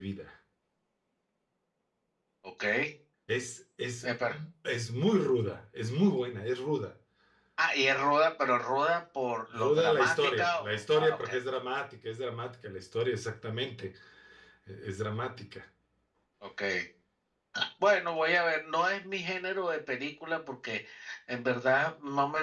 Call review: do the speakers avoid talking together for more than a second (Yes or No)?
No